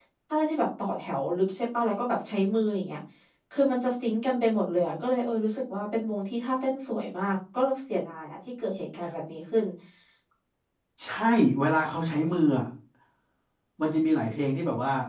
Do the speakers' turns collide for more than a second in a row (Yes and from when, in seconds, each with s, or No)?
No